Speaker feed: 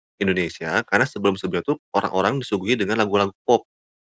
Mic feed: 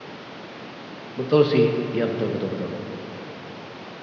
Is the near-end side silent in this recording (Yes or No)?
No